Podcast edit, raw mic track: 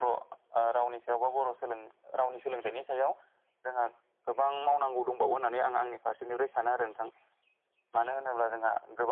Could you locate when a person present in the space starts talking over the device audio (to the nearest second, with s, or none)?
none